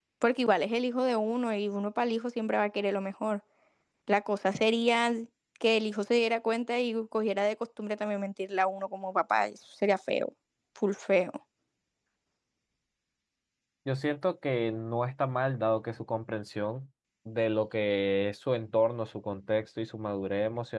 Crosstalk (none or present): none